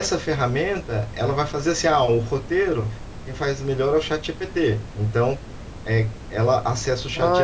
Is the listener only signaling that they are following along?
No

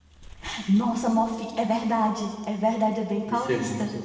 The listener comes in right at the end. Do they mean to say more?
Yes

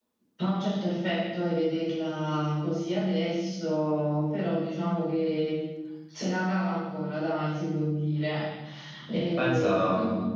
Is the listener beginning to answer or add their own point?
Yes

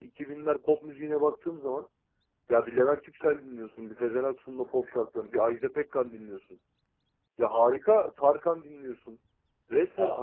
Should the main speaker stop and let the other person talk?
No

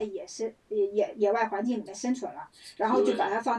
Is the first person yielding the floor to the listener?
No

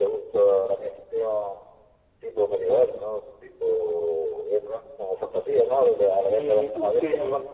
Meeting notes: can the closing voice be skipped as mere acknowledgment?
No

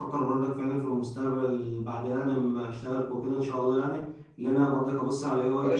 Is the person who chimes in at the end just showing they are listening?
No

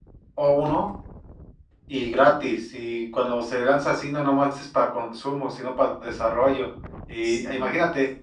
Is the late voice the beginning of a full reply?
No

